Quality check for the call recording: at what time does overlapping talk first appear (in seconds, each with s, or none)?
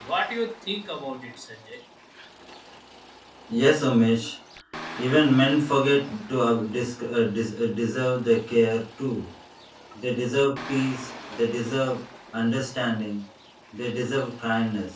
none